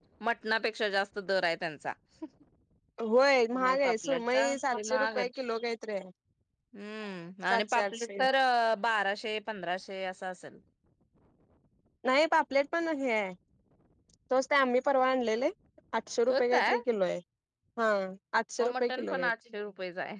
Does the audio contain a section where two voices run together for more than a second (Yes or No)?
Yes